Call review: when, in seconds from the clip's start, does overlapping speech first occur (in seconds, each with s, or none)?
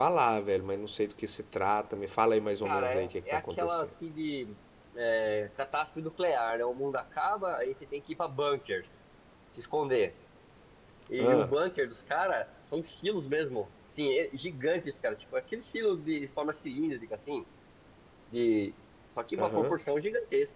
2.6 s